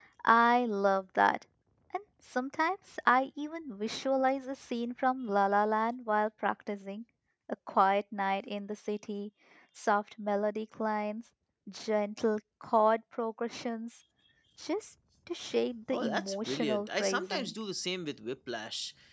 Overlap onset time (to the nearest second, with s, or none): 16 s